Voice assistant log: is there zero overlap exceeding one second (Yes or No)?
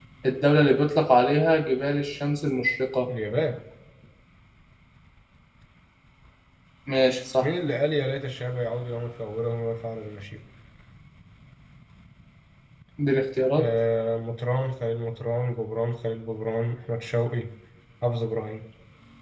Yes